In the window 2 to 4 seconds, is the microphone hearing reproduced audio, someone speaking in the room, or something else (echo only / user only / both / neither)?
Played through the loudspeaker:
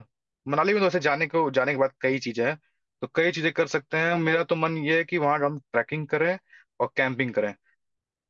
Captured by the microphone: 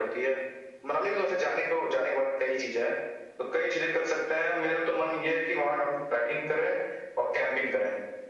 echo only